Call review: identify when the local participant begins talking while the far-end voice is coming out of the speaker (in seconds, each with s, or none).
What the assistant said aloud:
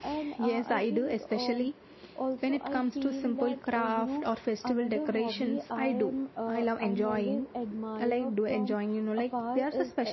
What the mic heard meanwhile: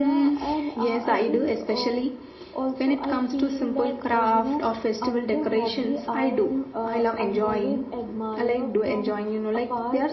none